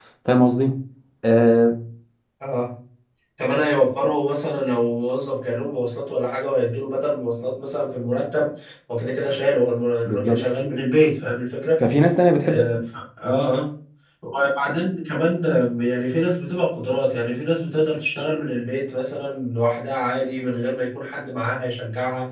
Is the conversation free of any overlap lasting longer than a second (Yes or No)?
Yes